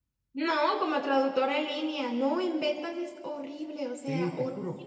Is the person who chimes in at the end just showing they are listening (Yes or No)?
No